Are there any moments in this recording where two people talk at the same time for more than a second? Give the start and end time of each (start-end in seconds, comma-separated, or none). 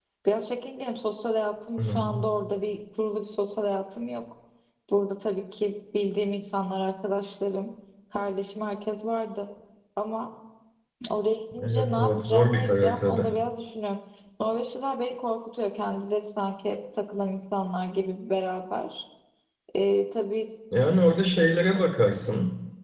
11.6-13.3